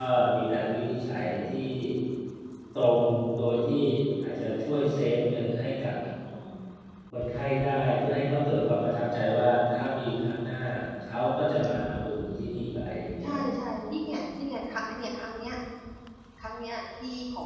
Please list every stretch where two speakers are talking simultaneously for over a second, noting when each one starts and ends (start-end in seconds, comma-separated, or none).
none